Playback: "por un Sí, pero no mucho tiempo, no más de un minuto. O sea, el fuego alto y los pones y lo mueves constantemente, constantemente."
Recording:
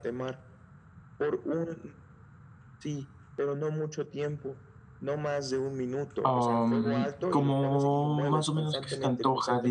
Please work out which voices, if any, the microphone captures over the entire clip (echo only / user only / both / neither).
both